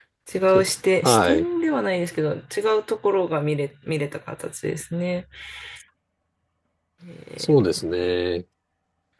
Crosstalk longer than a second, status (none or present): none